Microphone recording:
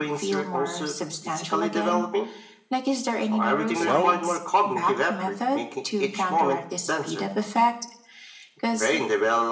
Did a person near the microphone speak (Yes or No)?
Yes